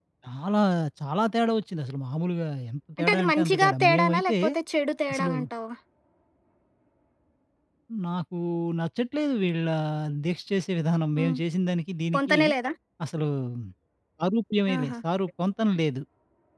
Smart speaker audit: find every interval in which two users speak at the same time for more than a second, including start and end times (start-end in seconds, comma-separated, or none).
3.0-4.3